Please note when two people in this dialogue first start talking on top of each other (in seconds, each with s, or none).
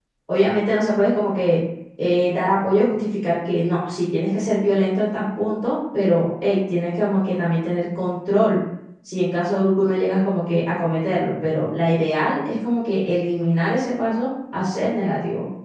none